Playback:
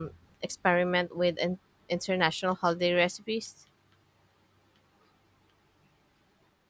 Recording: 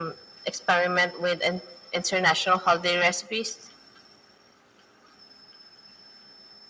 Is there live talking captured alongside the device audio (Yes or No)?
No